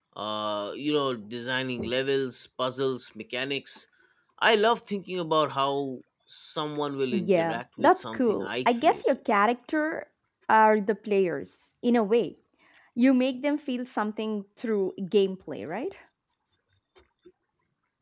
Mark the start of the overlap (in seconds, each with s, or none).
7.1 s